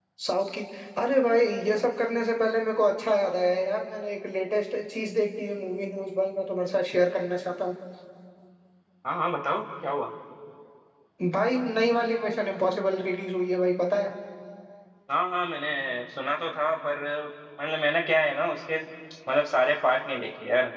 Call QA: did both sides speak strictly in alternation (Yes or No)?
Yes